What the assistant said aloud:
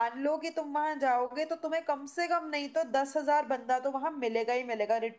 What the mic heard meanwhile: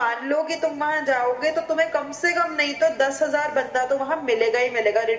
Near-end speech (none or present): none